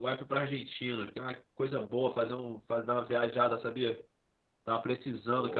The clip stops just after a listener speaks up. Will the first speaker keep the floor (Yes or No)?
Yes